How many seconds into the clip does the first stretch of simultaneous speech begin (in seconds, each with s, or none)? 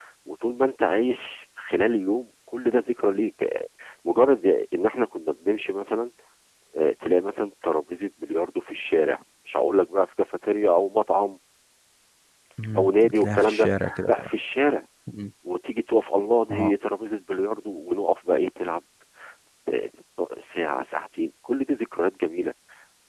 12.8 s